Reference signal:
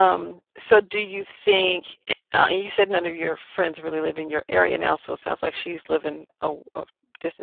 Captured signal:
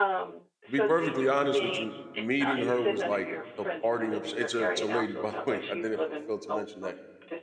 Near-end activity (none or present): present